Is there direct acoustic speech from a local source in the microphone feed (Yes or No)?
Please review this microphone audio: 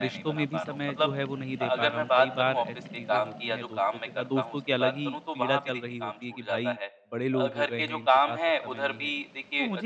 Yes